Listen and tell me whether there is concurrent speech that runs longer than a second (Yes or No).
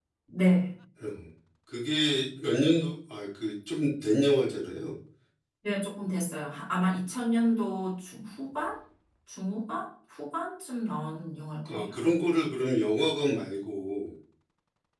No